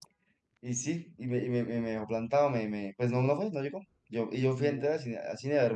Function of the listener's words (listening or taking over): listening